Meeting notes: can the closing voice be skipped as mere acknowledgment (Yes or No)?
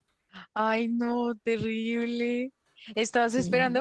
Yes